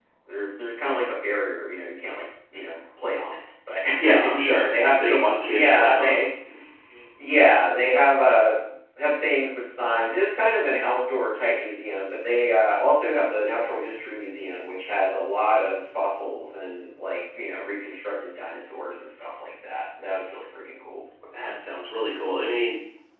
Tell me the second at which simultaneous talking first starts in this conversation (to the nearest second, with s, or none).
4 s